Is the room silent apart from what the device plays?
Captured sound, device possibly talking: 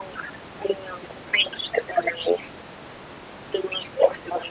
Yes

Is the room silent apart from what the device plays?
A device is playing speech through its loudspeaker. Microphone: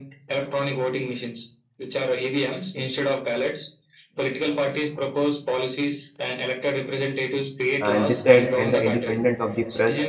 No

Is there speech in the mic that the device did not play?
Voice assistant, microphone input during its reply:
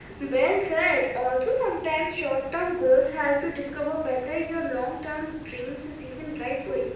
No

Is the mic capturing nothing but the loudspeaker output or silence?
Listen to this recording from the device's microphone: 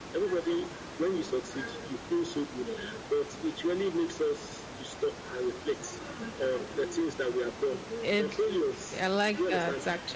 No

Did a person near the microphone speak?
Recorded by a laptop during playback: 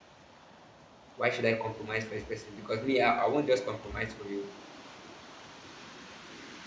Yes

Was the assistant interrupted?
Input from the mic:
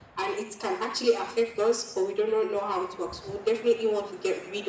No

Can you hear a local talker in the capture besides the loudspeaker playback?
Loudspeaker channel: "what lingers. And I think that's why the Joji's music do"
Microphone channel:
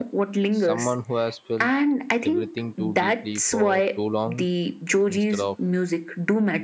Yes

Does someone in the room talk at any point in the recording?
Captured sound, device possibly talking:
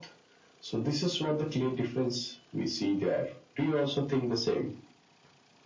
No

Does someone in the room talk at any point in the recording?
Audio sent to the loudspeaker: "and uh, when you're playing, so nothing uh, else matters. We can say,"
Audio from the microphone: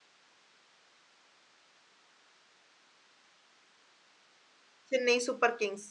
Yes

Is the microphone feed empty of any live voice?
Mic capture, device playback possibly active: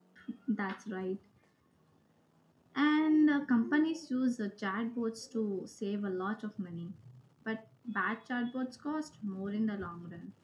No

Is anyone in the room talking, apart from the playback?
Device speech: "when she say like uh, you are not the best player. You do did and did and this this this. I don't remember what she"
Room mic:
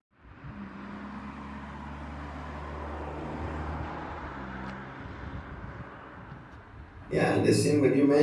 Yes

